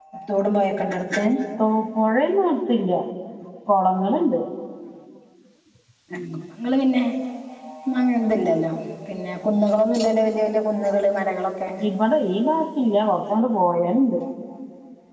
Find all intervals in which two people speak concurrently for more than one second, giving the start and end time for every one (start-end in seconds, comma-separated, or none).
none